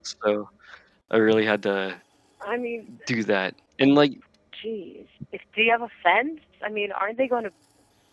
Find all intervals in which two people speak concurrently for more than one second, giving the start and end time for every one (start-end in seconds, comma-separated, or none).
none